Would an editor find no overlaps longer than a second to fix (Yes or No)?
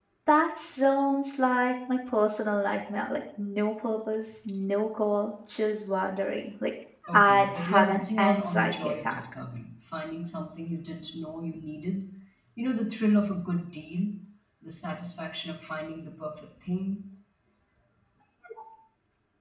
No